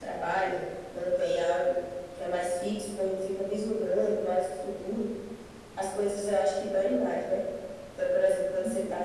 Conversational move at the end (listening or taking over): listening